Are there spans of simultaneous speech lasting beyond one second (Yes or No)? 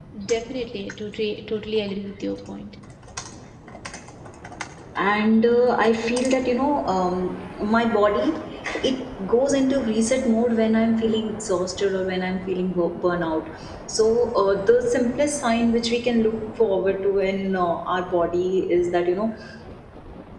No